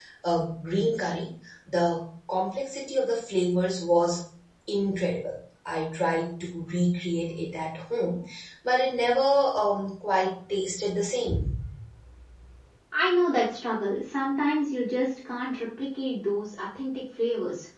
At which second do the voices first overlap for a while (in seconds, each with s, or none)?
none